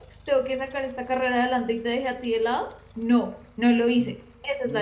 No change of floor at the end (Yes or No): No